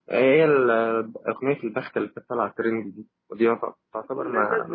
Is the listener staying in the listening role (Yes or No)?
No